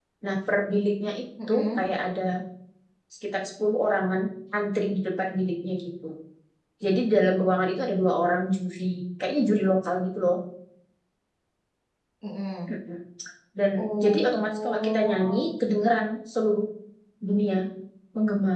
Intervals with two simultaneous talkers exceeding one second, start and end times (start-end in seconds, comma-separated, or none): 13.8-15.5